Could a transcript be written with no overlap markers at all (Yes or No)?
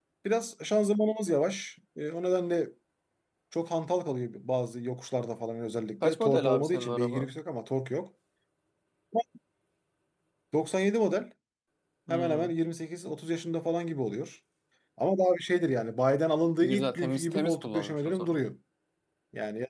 No